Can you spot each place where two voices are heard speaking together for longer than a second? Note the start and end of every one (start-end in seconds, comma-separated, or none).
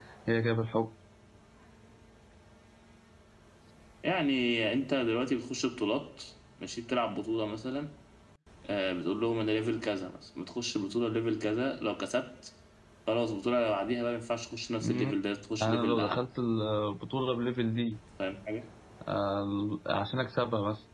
none